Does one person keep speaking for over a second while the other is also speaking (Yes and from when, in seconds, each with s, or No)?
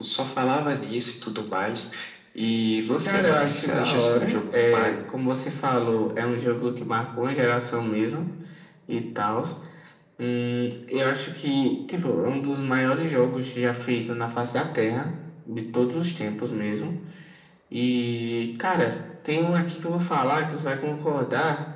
Yes, from 3.0 s